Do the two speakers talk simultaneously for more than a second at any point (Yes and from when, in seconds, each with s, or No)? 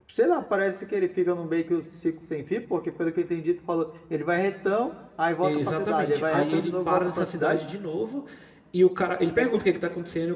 Yes, from 5.4 s